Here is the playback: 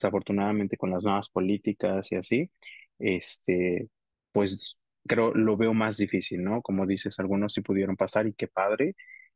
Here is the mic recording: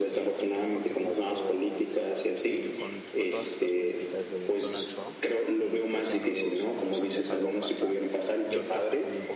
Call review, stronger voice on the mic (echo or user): echo